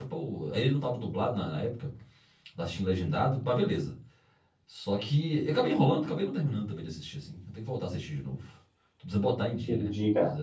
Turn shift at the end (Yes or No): Yes